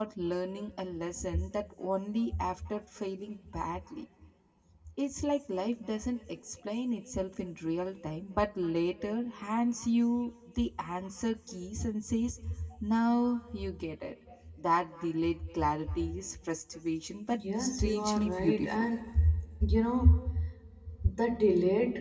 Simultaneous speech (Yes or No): Yes